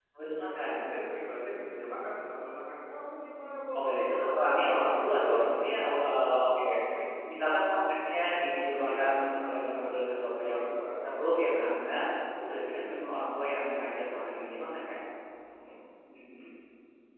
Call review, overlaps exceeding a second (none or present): present